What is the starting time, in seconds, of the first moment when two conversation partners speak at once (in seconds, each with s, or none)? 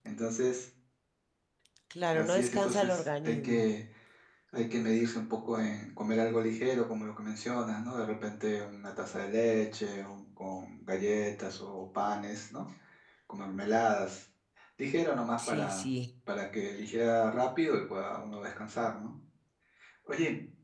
2.1 s